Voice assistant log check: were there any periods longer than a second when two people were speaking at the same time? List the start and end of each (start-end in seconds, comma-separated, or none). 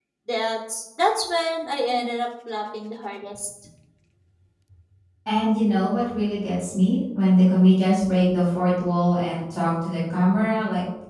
none